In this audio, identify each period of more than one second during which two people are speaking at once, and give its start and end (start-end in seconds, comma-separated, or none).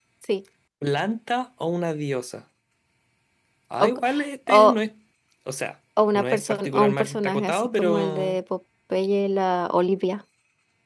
6.1-8.4